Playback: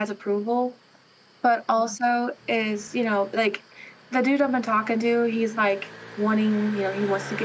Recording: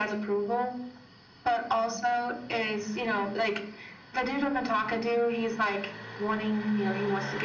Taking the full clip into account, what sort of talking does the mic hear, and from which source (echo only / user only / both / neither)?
echo only